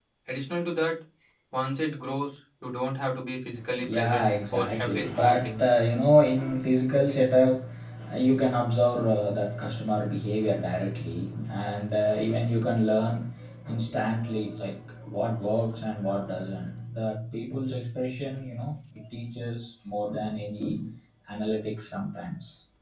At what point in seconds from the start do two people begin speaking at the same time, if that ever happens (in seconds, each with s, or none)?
3.8 s